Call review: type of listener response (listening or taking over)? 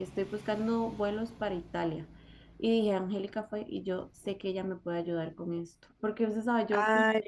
listening